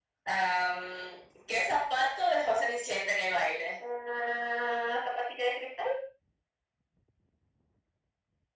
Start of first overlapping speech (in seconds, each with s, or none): none